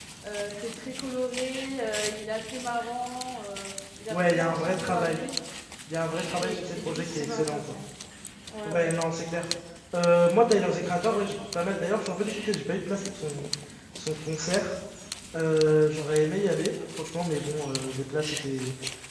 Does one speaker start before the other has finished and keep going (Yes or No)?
Yes